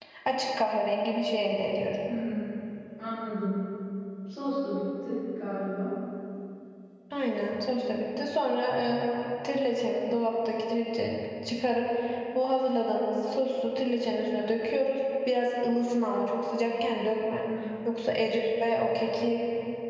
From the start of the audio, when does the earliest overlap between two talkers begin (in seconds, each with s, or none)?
none